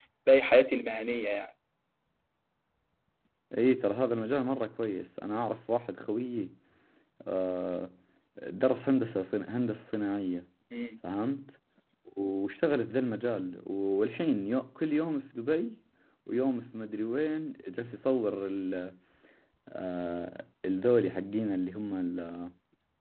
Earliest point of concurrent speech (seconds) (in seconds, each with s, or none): none